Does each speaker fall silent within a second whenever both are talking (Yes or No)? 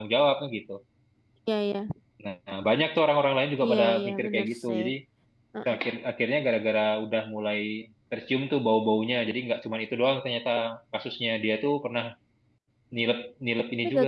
No